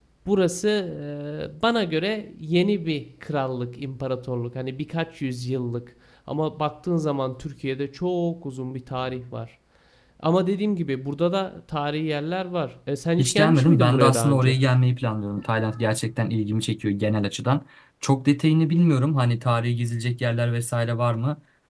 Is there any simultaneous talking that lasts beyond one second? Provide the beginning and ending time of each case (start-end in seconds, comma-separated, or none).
13.2-14.6